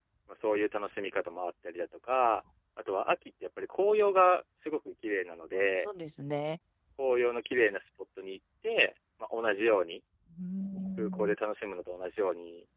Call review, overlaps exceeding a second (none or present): none